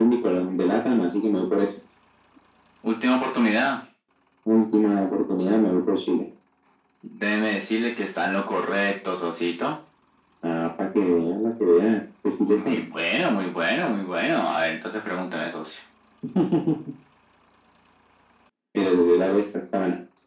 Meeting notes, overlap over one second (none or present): none